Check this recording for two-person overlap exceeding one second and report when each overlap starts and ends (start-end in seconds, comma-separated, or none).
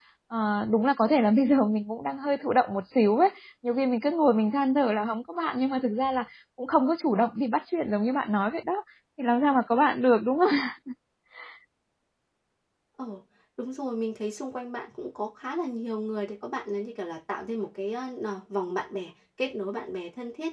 none